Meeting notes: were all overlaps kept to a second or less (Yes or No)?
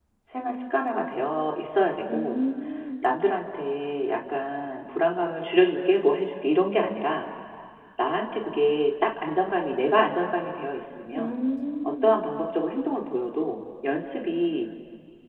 Yes